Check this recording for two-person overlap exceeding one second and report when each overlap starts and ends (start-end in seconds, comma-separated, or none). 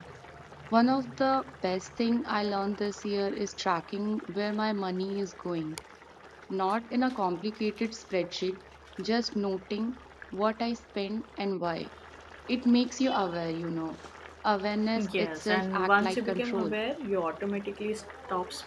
15.2-16.7